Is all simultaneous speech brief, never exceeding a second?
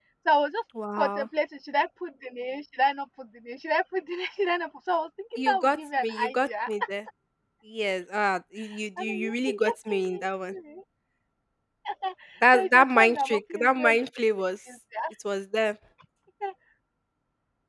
No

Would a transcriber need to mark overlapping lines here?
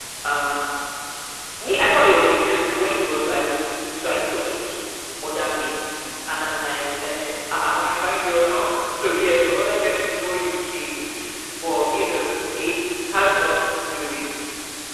No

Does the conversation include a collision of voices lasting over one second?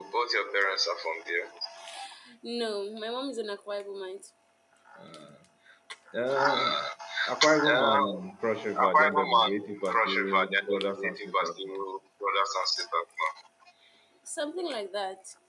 Yes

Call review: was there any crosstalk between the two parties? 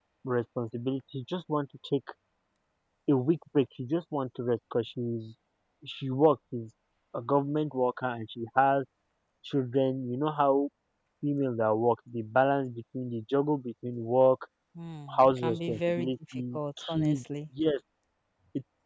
Yes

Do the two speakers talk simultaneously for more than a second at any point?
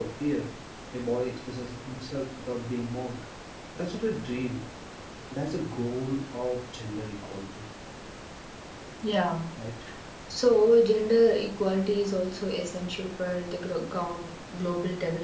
No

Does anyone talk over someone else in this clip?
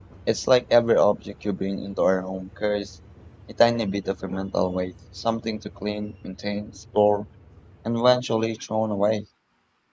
No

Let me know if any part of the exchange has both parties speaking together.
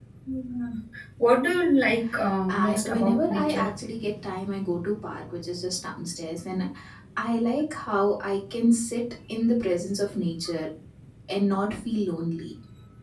Yes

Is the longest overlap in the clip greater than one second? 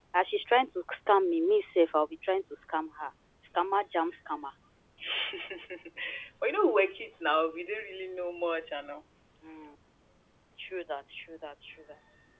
No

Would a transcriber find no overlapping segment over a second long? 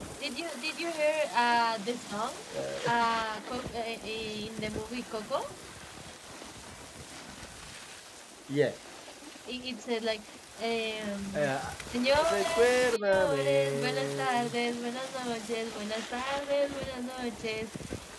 No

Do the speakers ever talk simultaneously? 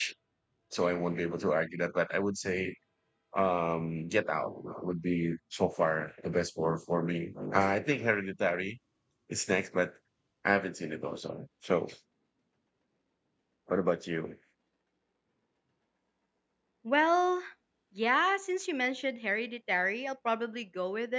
No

